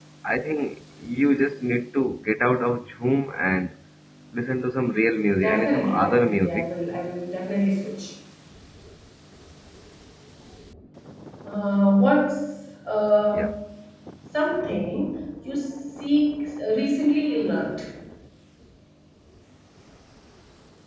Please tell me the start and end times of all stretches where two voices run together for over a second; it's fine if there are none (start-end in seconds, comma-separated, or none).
5.4-6.7